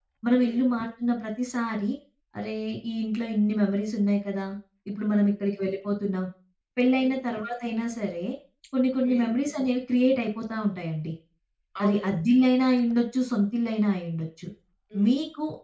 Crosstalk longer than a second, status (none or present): none